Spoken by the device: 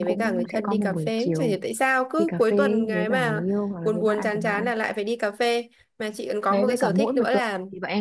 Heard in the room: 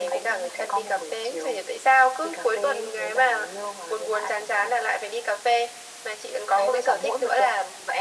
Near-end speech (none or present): none